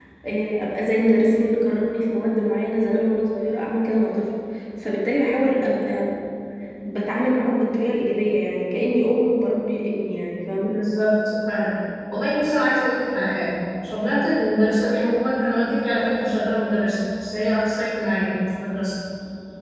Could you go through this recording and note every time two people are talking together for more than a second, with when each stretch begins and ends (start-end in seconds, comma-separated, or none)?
none